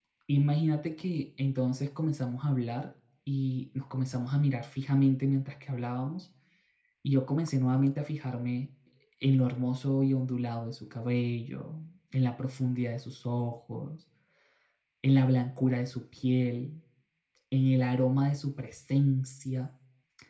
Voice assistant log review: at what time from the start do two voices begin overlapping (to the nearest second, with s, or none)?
none